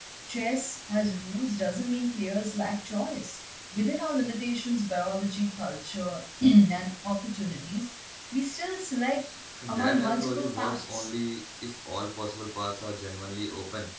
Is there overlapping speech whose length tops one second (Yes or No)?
Yes